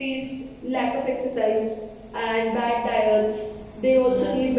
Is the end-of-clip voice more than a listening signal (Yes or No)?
No